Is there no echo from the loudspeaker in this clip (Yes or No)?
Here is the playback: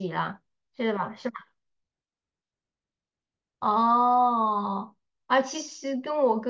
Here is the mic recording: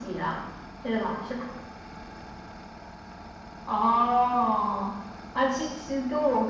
No